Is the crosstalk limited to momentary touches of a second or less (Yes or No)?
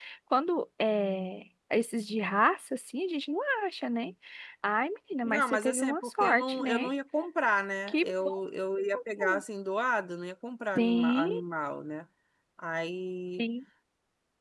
No